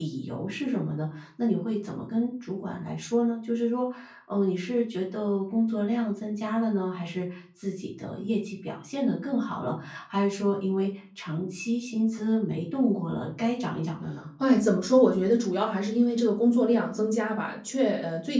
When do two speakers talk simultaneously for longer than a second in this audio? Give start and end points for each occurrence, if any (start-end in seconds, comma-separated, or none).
none